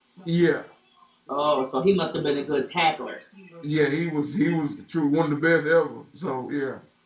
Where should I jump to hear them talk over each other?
none

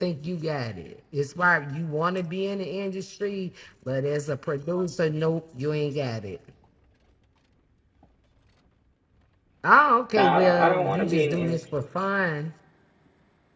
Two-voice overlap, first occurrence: 10.2 s

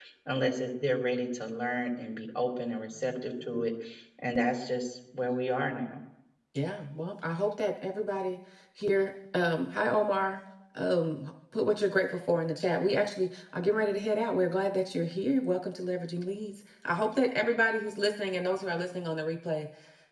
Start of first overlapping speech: none

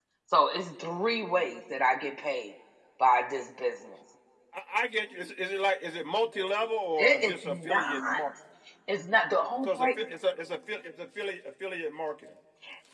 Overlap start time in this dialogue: 7.0 s

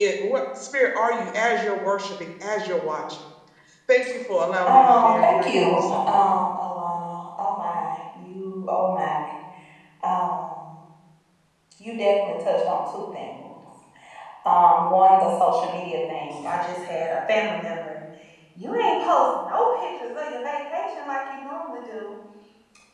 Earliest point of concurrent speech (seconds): 4.6 s

